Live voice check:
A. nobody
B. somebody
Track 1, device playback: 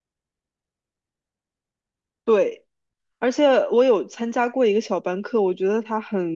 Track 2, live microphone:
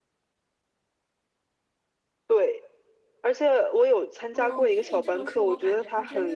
B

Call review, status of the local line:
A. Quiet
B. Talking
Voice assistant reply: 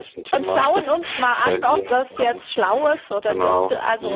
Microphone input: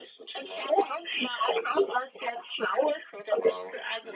A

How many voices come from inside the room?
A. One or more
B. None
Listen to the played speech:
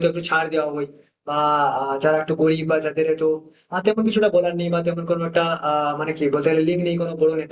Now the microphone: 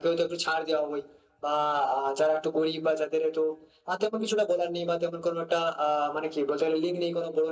B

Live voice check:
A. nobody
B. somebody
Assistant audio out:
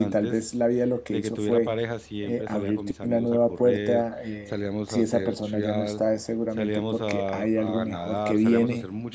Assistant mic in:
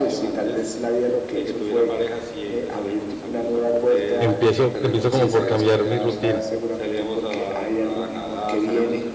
B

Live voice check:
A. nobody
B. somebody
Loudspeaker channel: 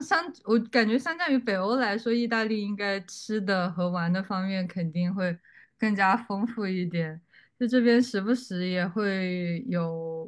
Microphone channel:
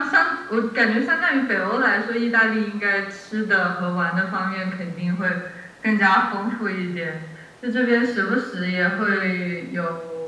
A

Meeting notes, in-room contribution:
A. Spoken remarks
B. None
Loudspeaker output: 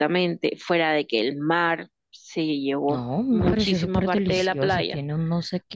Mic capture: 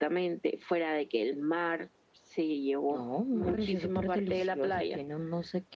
B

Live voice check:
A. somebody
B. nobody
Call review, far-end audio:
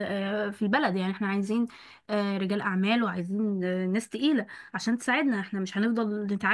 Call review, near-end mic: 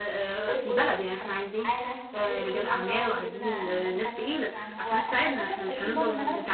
A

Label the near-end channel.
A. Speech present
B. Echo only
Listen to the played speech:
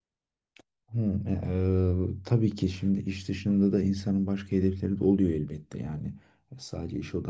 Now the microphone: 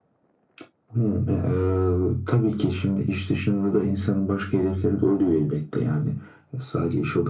B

